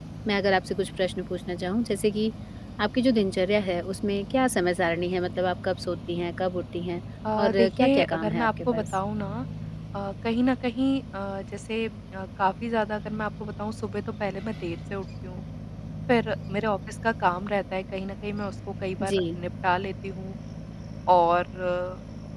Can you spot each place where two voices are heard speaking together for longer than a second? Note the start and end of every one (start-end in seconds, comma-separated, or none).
7.4-8.9